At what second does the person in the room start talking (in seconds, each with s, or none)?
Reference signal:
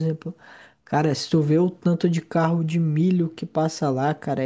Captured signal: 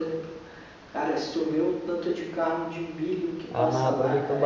3.5 s